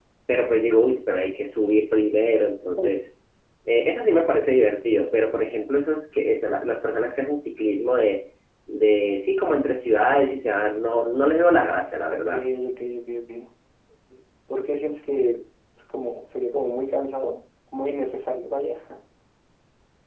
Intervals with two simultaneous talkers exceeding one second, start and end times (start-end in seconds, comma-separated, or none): none